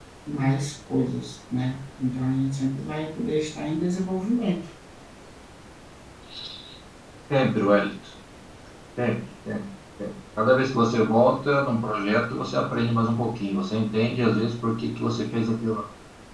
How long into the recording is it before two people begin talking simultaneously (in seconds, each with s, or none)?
none